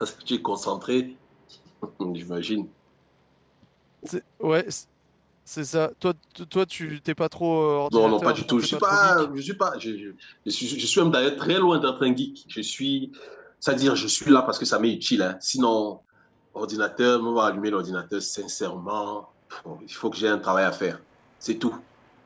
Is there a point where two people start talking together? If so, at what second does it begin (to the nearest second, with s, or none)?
8 s